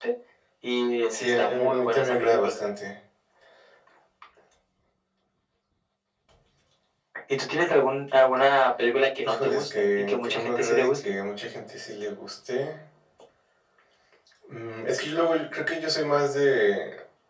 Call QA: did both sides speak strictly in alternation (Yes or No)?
No